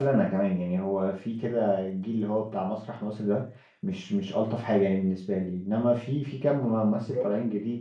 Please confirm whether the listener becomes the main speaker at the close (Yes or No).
No